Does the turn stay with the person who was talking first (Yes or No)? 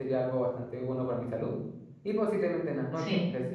Yes